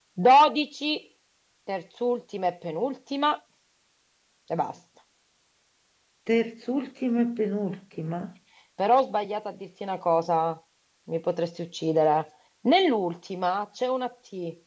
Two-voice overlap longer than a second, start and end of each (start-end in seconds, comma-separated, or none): none